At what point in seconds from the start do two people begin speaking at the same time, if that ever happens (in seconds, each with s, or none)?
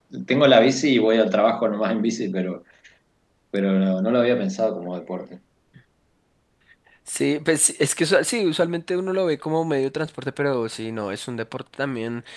none